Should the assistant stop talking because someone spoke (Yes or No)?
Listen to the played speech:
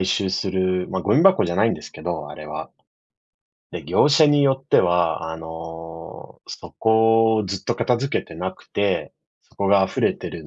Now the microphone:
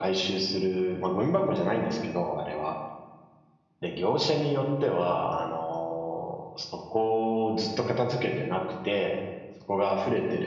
No